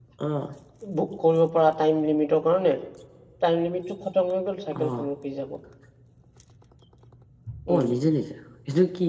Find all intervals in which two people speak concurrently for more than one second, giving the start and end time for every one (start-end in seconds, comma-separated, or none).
none